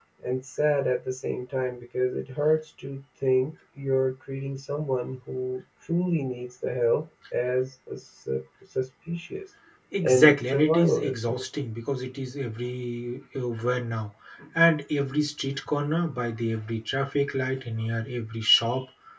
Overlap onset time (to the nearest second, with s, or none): 10 s